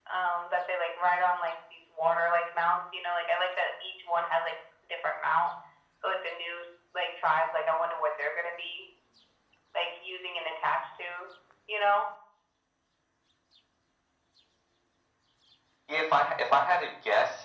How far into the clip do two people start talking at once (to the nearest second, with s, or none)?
none